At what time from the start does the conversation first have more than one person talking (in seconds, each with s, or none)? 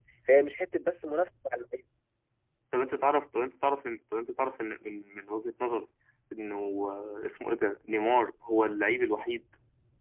none